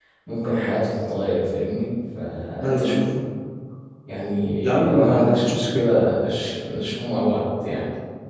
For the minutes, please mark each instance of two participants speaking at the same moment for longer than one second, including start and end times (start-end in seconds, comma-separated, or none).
4.6-6.0